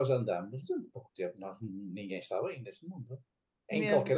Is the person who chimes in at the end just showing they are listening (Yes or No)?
Yes